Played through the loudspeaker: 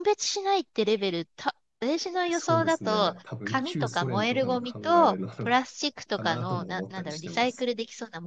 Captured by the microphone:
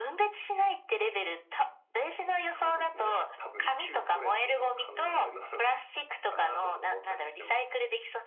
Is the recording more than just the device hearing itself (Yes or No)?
No